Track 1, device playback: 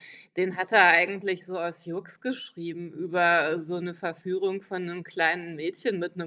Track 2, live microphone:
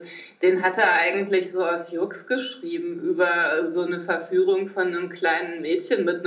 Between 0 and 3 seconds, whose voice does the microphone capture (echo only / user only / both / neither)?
echo only